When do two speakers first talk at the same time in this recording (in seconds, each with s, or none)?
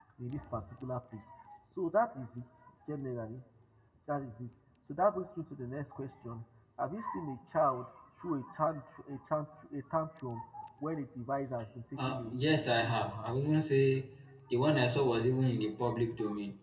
12.0 s